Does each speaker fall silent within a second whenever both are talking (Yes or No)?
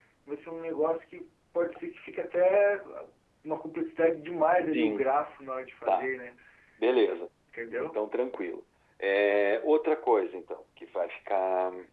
Yes